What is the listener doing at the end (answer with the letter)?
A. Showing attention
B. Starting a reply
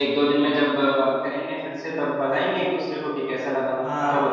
B